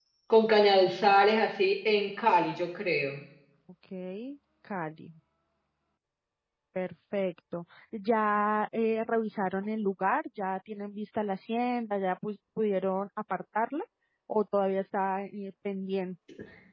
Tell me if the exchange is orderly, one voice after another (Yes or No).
Yes